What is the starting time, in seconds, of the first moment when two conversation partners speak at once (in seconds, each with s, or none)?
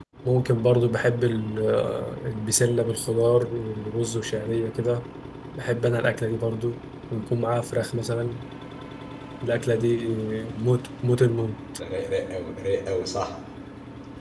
none